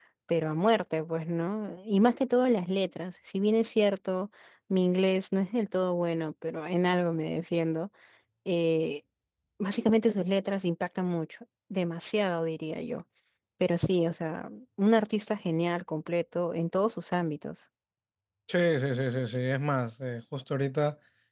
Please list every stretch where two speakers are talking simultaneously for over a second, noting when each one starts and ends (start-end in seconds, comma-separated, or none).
none